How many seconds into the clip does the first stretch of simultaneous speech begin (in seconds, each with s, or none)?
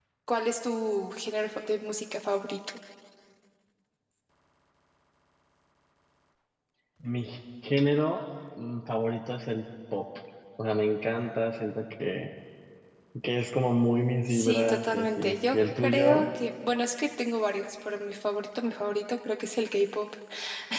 14.3 s